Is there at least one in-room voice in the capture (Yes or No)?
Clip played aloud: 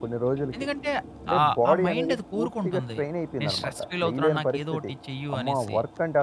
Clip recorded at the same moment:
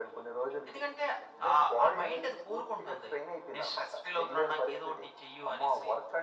No